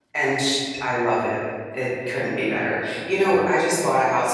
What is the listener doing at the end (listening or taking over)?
listening